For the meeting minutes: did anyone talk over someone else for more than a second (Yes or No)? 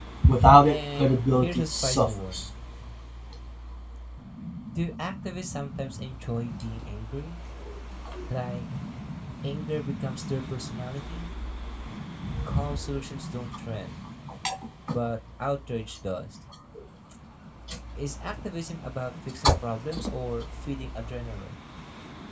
Yes